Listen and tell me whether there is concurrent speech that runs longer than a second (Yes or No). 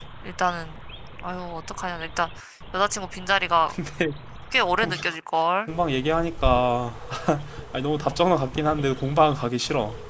No